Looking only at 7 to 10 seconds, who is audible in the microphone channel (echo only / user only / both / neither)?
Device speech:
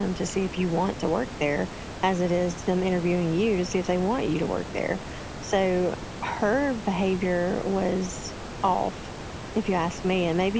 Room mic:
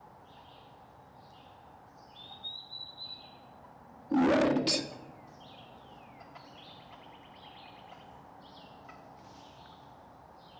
neither